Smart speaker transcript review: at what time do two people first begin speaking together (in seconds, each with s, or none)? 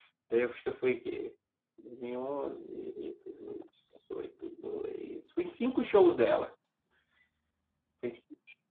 none